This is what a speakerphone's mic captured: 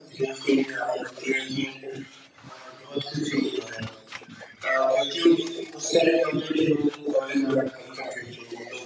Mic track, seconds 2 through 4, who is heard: echo only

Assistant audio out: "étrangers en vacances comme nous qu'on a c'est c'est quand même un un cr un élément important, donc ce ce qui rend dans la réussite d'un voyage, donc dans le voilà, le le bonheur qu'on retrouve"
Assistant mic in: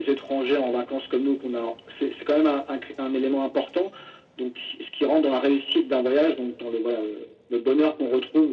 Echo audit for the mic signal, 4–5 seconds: echo only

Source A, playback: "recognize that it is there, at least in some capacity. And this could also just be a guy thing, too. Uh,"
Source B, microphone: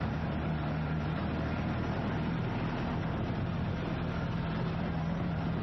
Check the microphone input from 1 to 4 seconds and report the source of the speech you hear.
neither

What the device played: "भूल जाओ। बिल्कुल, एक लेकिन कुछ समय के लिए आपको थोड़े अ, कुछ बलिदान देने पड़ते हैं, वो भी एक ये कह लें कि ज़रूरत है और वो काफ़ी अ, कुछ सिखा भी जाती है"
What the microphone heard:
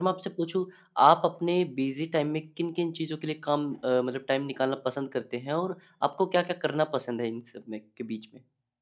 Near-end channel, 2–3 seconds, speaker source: user only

